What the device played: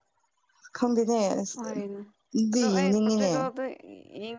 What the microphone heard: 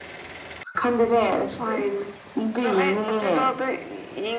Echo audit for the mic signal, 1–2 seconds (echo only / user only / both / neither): echo only